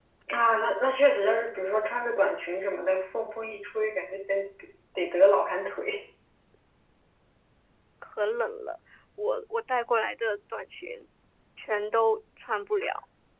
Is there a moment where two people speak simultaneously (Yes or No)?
No